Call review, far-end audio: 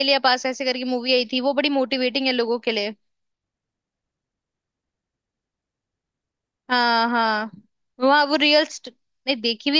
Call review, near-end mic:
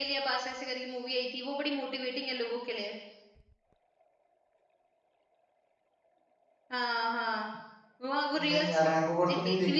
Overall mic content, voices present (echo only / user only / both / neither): both